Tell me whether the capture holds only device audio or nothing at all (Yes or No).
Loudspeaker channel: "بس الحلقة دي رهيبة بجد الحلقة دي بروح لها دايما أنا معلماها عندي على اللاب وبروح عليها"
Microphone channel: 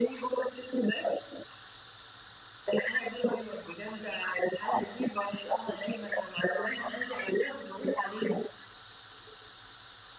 Yes